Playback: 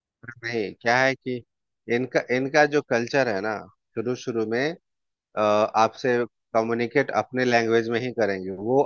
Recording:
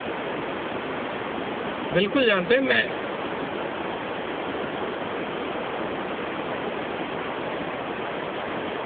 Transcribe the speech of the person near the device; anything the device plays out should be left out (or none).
बिल्कुल जानते हैं मैं